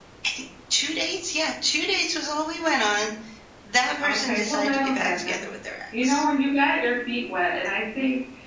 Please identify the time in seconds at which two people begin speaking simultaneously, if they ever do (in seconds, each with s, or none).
4.0 s